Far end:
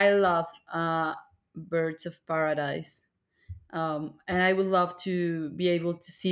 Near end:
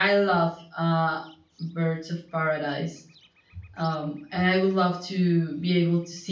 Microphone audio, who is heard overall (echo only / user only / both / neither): echo only